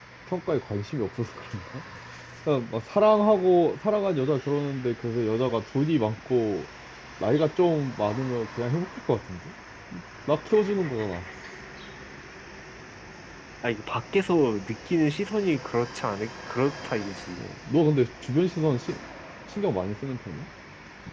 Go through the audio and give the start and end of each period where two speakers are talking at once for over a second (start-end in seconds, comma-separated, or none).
none